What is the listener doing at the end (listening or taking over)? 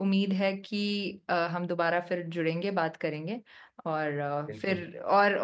listening